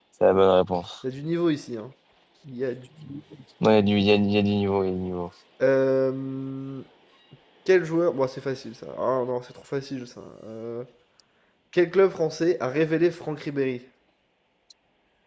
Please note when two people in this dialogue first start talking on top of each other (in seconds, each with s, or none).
none